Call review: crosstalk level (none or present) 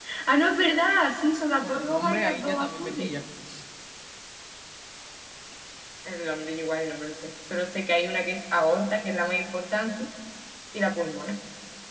present